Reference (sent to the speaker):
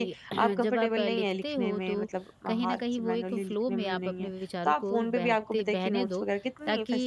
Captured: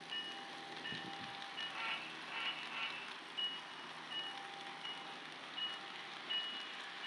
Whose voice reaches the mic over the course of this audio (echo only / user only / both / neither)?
neither